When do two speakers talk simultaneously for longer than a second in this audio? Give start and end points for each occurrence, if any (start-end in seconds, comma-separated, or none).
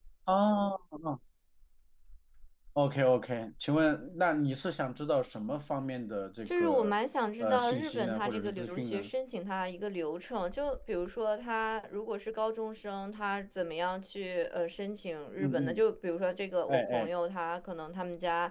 7.4-9.1